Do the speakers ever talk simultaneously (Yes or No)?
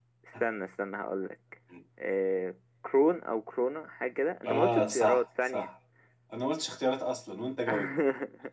Yes